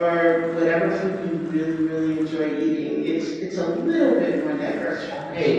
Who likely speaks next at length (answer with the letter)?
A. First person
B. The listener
B